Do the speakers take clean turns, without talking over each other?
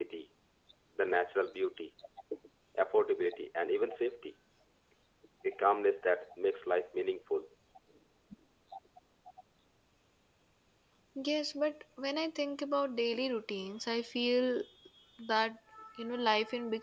Yes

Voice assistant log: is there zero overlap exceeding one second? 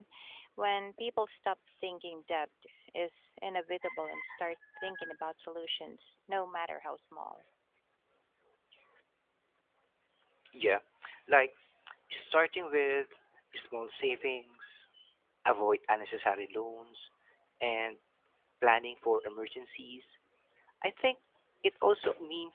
Yes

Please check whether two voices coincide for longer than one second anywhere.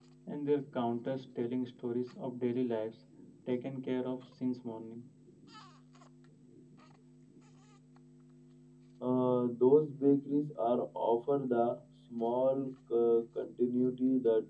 No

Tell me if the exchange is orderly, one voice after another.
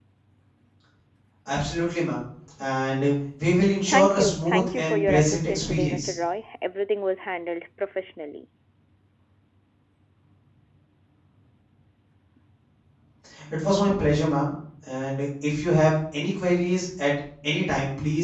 No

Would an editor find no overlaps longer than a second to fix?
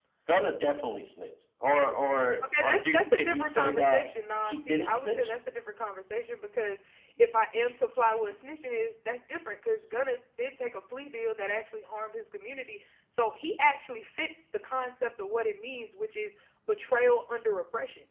No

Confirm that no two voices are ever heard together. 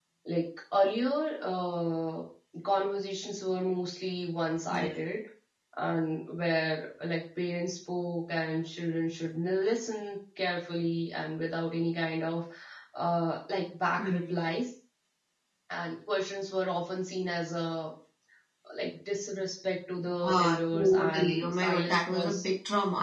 No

